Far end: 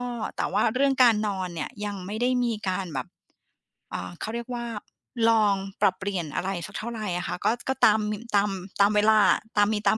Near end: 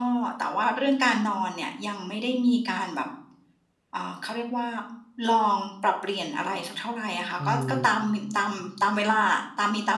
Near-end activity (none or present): present